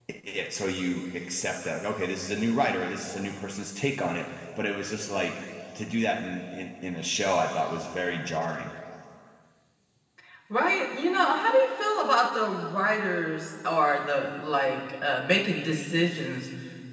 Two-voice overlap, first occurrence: none

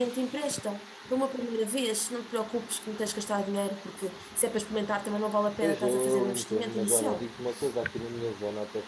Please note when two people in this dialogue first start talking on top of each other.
6 s

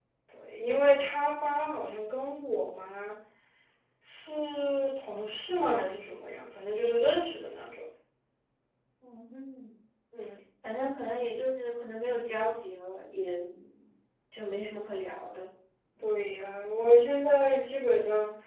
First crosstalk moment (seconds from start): none

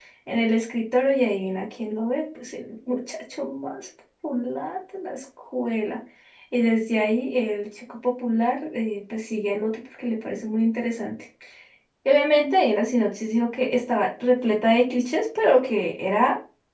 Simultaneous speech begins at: none

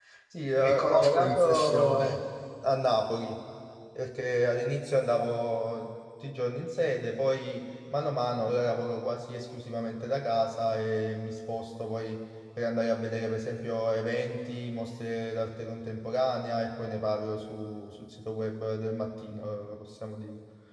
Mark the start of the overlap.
1 s

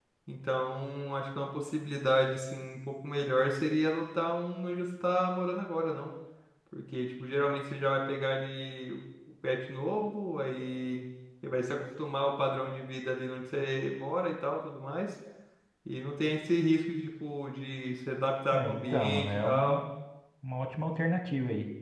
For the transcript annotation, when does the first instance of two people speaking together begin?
19 s

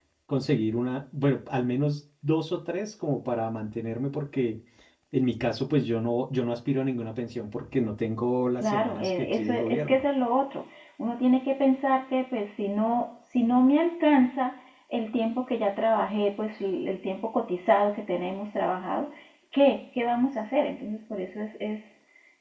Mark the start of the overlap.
9 s

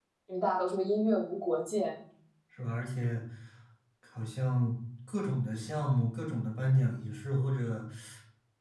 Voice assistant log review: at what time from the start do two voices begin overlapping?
none

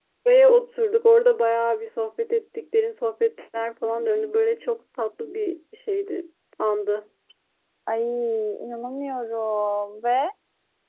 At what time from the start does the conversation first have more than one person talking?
none

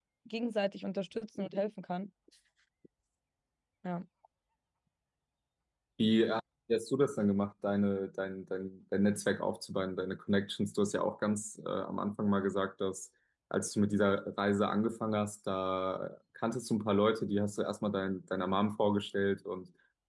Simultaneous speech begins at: none

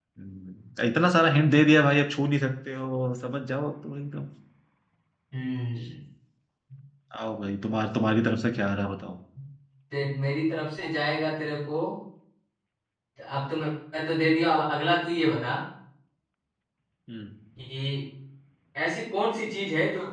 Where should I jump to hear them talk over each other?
none

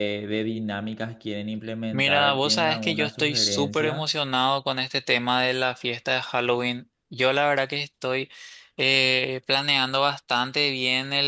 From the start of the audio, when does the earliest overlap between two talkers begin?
2 s

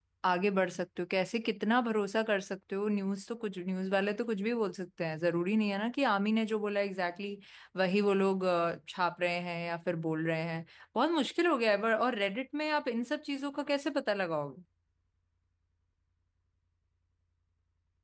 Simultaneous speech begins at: none

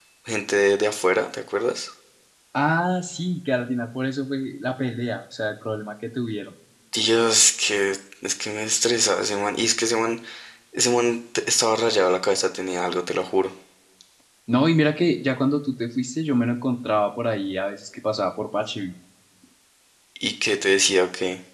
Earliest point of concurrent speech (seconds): none

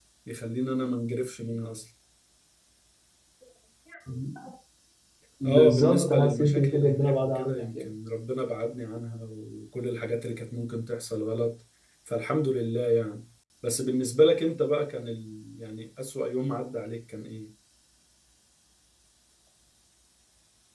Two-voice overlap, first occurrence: 5 s

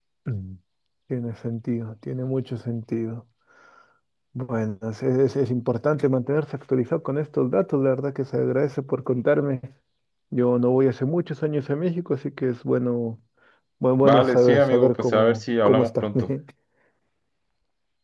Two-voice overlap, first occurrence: 14 s

